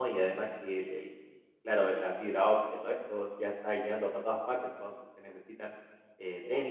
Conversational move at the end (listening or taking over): listening